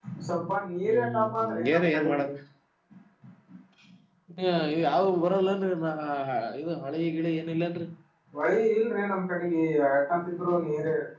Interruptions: present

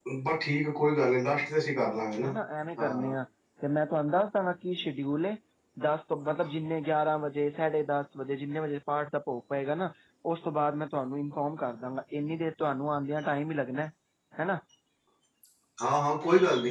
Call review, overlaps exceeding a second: none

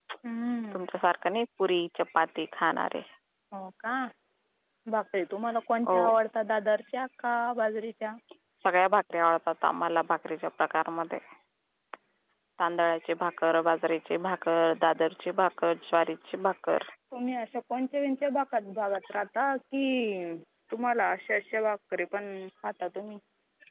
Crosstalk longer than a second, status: none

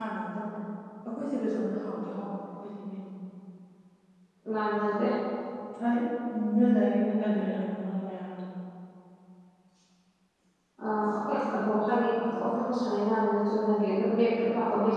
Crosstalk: none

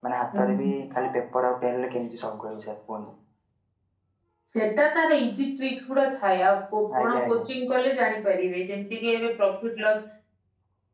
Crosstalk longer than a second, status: none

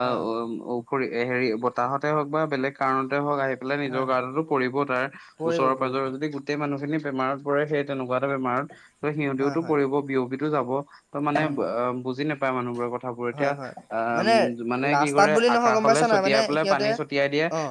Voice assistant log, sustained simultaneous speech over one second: present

